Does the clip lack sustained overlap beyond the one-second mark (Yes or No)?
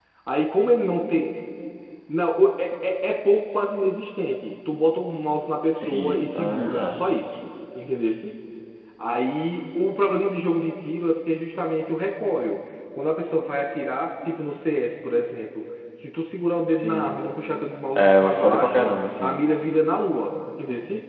No